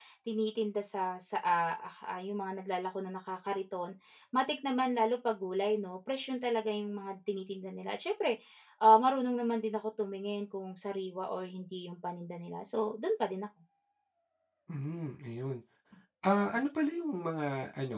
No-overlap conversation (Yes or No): Yes